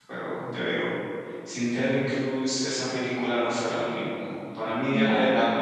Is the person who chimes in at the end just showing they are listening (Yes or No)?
Yes